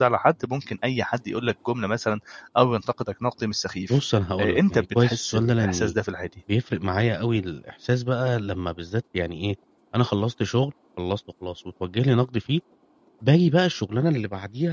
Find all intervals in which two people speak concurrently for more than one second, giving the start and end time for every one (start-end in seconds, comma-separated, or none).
4.4-5.9